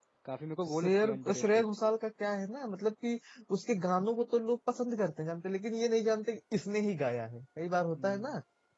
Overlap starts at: 0.7 s

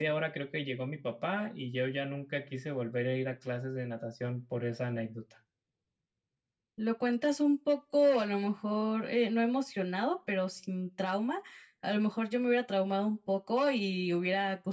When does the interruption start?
none

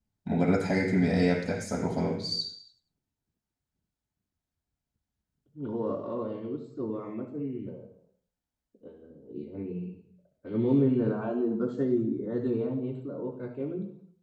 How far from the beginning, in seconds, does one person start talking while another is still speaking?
none

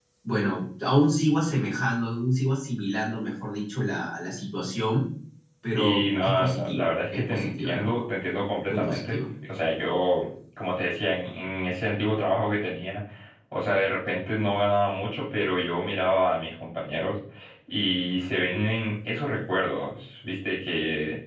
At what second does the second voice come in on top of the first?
5.8 s

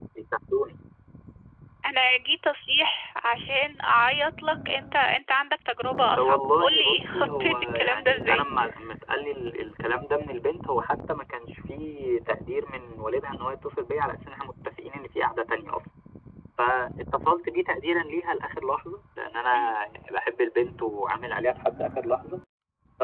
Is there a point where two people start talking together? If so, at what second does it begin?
6.2 s

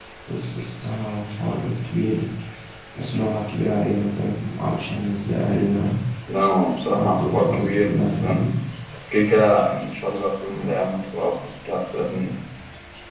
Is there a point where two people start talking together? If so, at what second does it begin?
7.0 s

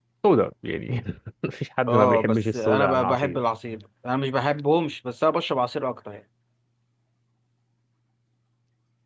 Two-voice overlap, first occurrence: 1.9 s

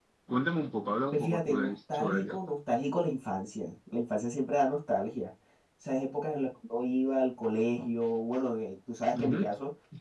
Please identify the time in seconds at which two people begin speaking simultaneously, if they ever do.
1.1 s

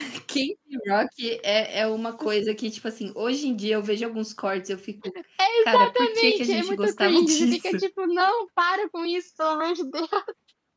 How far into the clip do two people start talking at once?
5.6 s

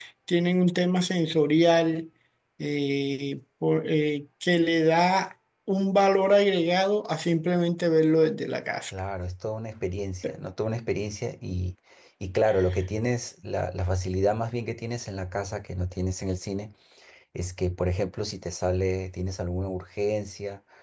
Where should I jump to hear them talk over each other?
none

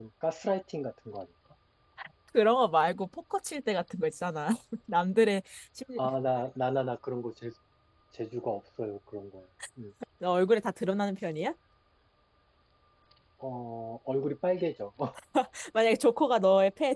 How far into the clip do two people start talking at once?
none

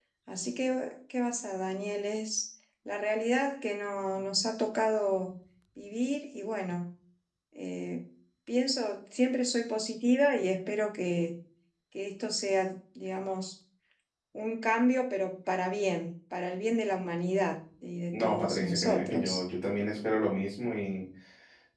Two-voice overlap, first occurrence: 18.1 s

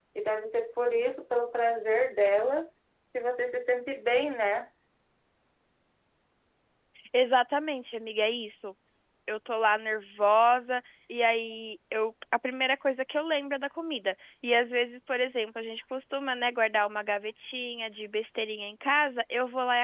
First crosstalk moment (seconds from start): none

